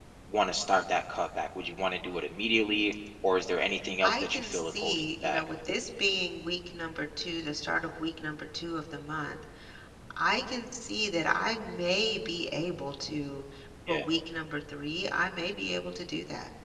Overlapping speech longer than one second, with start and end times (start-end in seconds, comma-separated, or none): 4.0-5.4